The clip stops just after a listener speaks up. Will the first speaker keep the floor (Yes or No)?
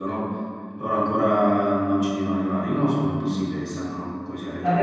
No